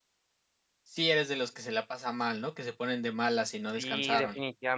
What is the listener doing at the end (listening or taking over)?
taking over